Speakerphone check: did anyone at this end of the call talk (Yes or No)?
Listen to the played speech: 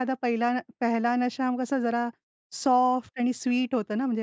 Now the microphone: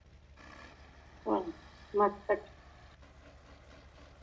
Yes